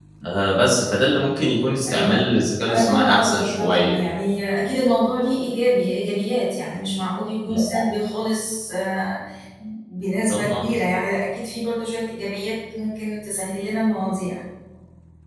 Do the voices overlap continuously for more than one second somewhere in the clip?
Yes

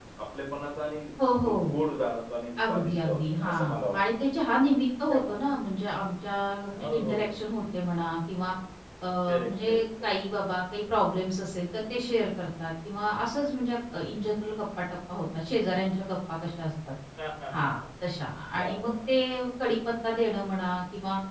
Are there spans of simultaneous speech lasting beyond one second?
Yes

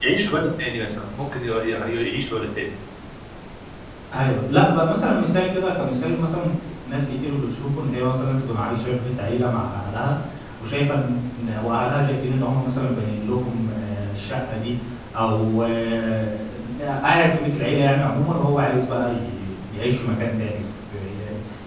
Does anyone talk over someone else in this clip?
No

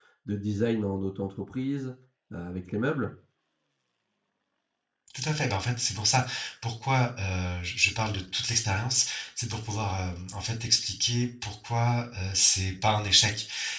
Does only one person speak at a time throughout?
Yes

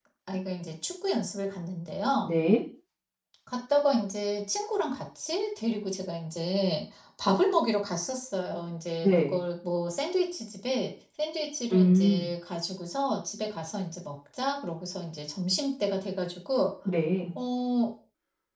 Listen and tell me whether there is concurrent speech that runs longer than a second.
No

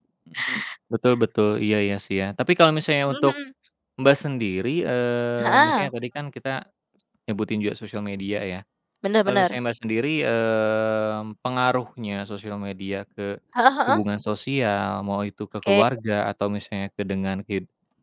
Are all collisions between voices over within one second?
Yes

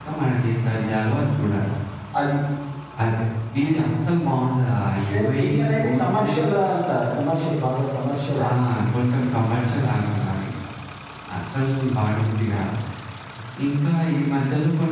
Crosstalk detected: Yes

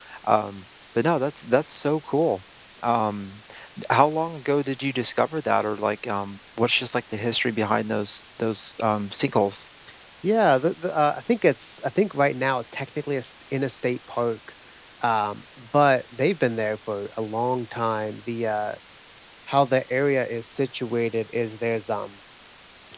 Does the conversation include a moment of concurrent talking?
No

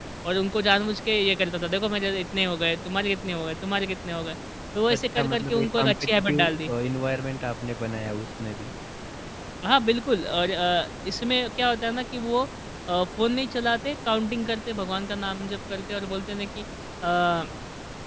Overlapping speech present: Yes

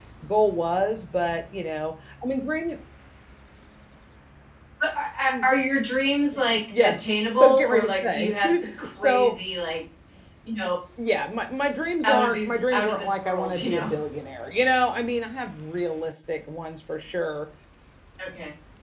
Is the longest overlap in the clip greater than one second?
Yes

